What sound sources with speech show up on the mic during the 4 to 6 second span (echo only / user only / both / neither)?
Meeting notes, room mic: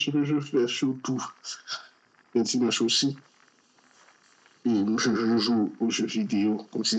echo only